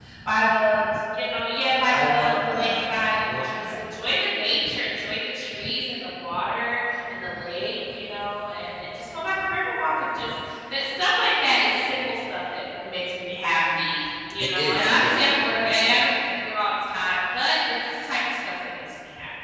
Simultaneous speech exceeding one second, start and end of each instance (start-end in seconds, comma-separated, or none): 1.9-3.9, 14.4-16.1